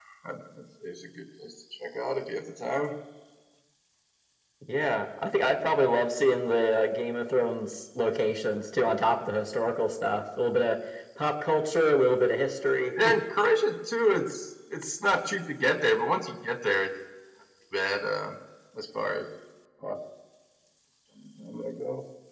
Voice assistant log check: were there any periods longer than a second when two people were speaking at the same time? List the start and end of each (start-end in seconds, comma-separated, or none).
none